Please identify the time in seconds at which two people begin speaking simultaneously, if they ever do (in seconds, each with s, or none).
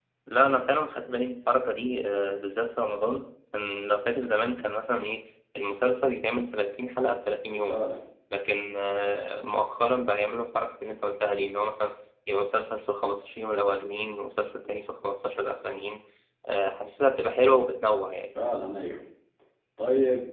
none